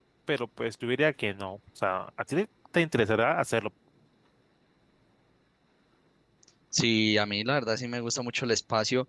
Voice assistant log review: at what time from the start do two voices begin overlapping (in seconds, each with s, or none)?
none